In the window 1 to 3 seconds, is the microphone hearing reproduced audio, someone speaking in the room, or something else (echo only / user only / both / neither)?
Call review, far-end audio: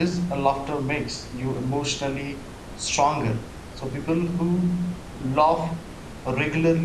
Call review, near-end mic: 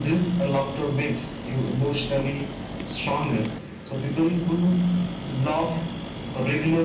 echo only